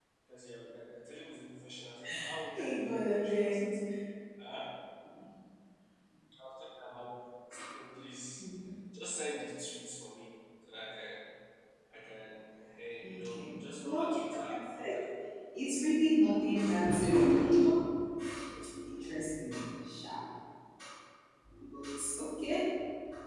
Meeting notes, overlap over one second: present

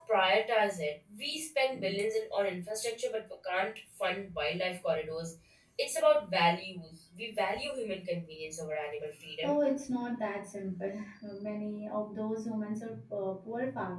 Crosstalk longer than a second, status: none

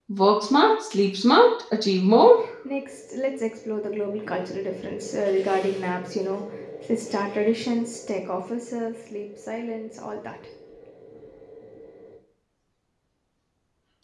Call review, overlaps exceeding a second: none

